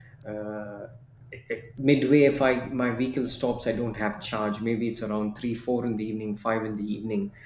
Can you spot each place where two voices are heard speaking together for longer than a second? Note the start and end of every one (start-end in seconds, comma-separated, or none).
none